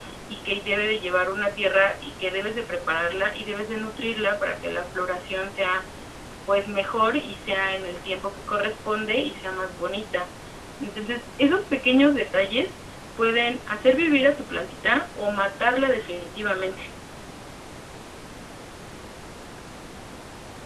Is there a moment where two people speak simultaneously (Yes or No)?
No